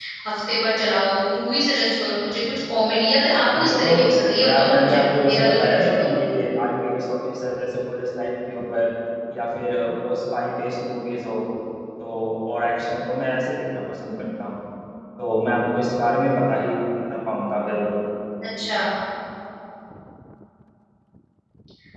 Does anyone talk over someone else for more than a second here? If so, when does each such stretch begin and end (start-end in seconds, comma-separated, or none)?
4.4-6.1